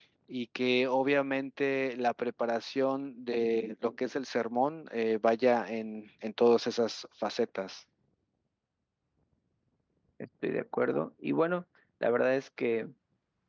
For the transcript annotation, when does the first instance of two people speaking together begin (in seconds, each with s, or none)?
none